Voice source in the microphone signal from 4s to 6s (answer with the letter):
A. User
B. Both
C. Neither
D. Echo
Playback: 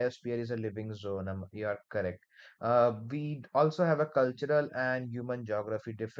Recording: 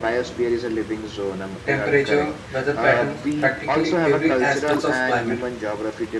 B